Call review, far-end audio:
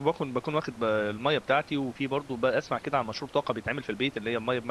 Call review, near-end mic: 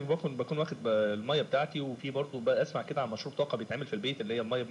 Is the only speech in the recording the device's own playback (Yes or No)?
Yes